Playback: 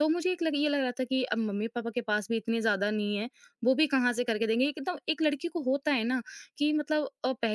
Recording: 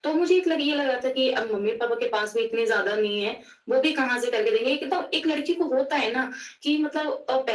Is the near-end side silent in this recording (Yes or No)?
Yes